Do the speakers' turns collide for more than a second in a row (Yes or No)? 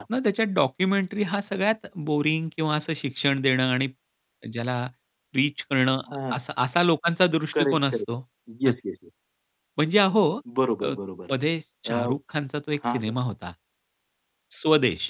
No